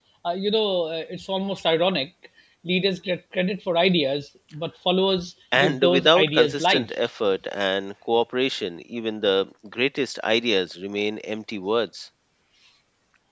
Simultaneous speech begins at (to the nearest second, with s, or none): 6 s